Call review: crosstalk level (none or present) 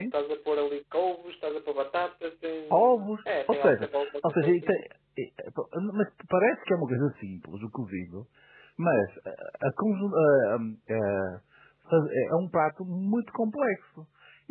present